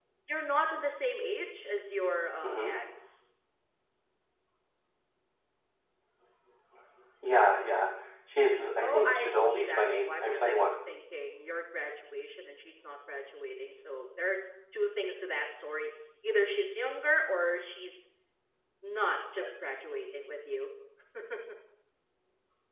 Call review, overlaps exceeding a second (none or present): present